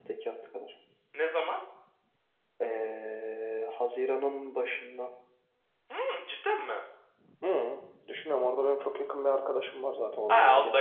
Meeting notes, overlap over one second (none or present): none